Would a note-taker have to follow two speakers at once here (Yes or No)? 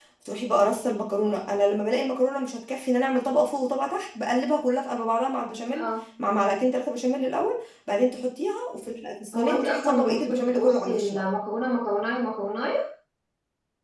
Yes